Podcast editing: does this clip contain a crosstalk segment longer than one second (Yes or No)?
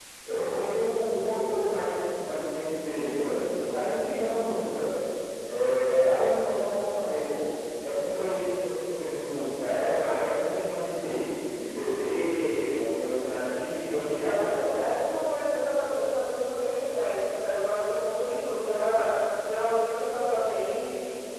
No